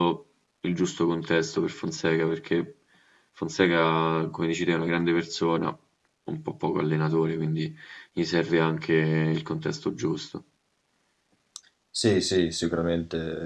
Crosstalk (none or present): none